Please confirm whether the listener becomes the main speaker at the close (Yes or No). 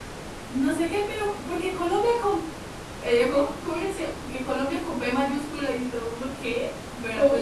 No